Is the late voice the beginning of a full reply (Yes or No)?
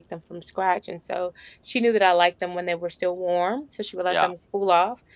No